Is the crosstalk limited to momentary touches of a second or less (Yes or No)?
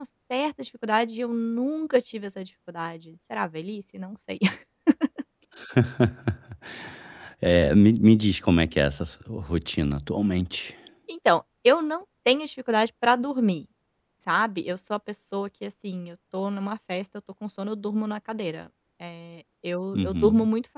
Yes